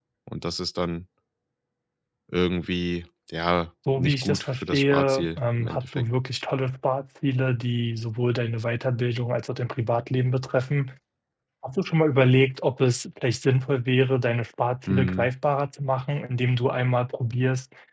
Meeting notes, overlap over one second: present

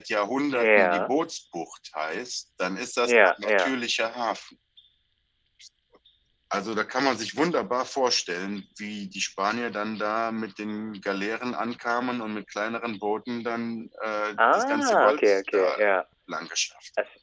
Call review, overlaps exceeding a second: present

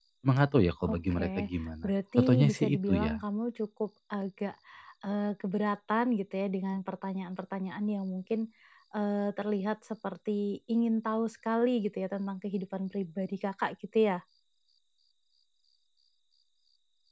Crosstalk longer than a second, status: present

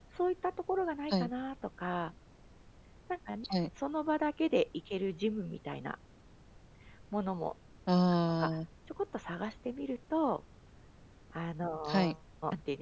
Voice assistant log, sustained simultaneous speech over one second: none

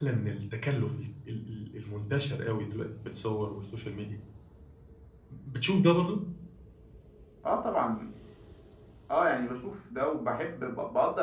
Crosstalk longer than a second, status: none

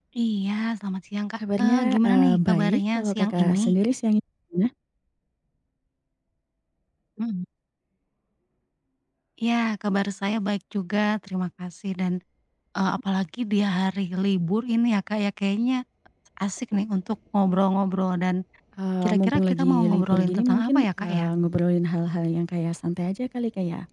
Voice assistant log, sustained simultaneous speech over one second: present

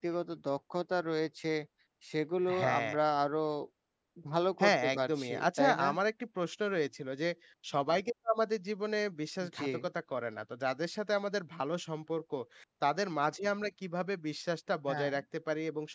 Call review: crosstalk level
present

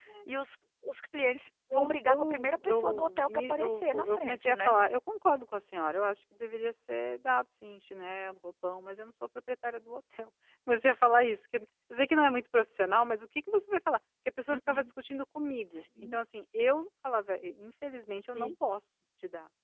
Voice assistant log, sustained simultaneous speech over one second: present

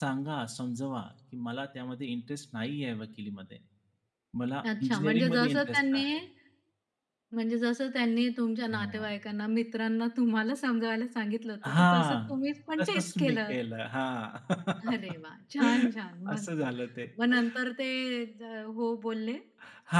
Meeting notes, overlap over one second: present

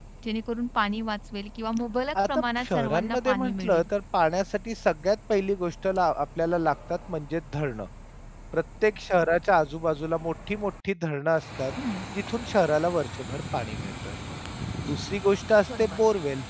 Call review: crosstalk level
present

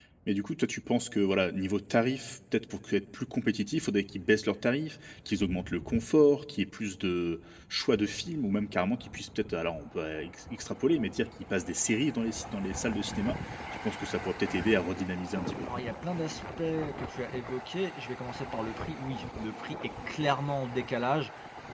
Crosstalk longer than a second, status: none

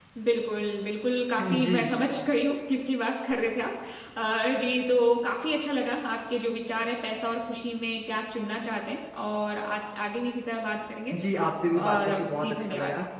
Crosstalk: present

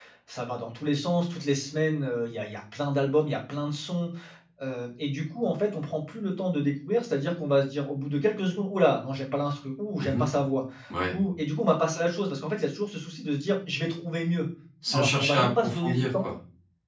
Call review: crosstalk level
present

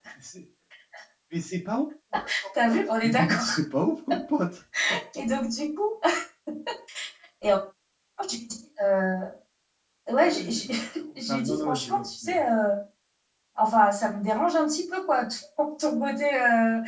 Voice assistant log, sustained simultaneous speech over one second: present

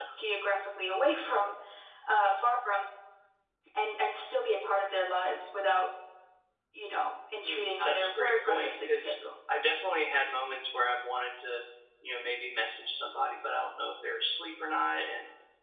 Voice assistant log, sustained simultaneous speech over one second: present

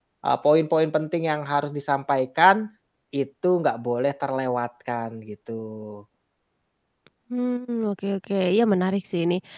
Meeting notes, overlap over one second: none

